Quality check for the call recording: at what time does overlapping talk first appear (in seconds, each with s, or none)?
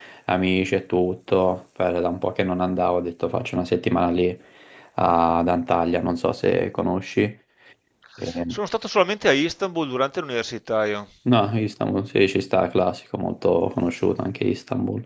none